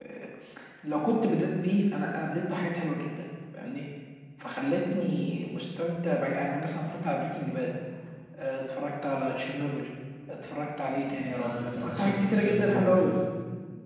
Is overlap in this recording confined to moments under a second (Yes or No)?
No